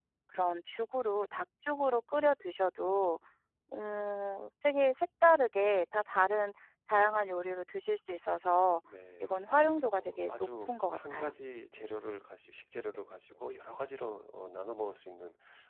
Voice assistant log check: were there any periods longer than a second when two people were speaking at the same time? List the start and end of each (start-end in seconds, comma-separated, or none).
10.0-11.3